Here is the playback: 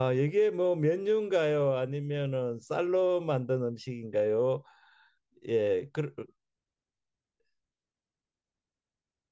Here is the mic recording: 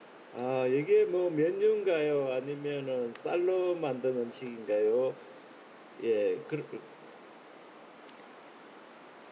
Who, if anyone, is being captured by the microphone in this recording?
echo only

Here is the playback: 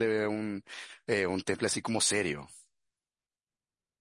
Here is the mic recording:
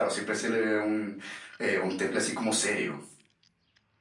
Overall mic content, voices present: echo only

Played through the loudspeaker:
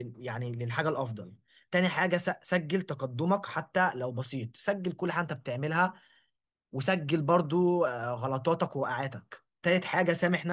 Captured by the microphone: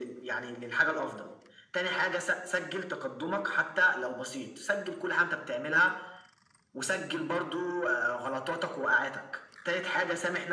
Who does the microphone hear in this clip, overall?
echo only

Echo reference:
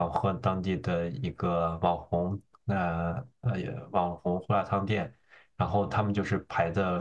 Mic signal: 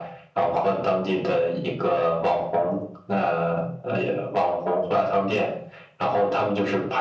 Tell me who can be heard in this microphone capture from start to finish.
echo only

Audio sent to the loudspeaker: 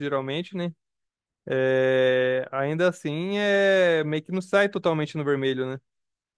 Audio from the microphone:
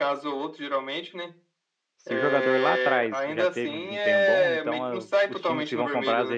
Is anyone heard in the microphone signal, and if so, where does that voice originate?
both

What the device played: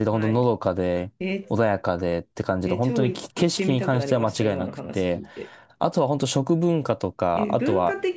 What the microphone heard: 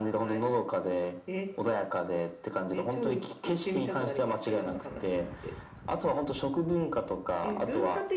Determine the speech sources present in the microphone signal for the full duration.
echo only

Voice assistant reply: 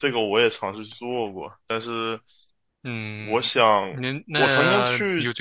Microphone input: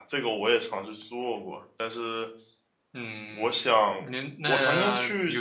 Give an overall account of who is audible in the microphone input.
echo only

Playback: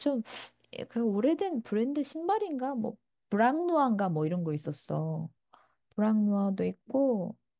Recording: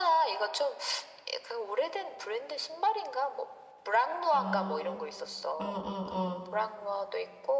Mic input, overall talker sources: both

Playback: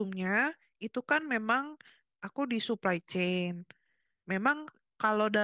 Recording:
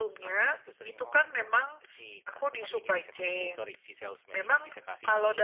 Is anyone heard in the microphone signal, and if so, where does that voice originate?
both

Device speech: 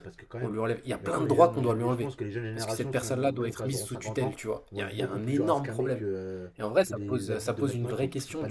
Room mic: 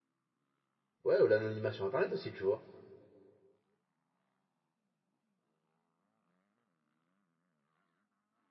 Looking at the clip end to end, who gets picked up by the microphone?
user only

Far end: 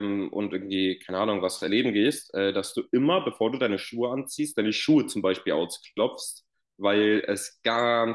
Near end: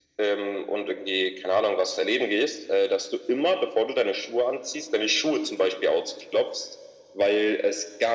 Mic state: echo only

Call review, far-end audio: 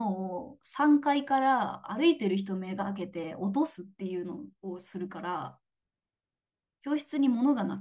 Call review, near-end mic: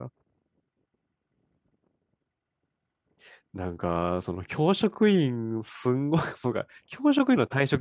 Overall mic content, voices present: user only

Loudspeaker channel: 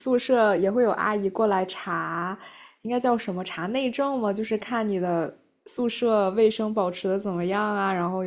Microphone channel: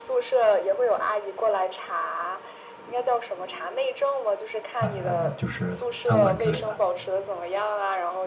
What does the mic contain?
both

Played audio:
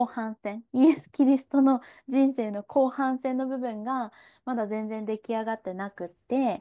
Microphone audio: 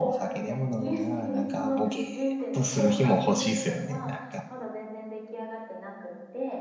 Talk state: both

